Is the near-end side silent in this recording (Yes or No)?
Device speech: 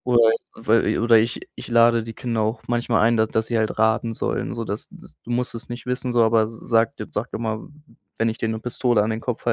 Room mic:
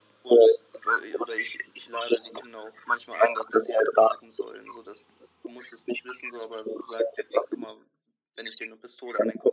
Yes